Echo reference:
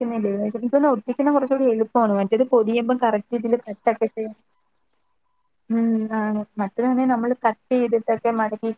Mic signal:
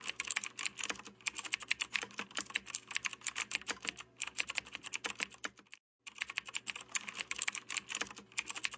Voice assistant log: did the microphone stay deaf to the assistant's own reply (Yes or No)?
Yes